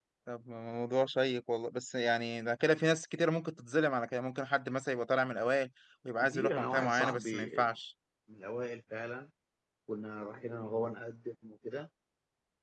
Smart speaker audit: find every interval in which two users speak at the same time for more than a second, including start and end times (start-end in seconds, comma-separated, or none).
6.2-7.5